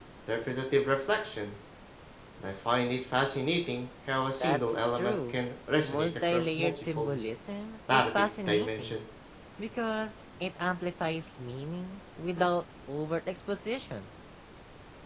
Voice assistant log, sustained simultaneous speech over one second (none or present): present